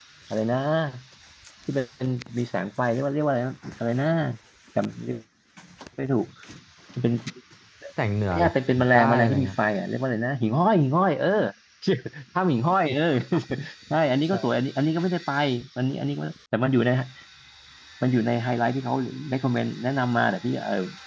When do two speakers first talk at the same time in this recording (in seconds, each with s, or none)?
8.3 s